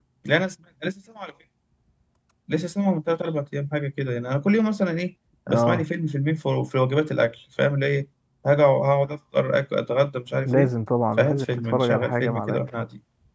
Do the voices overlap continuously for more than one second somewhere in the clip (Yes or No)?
Yes